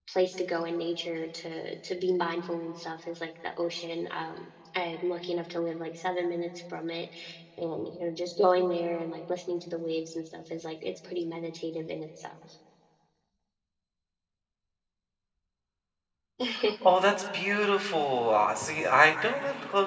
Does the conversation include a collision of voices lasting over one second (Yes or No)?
No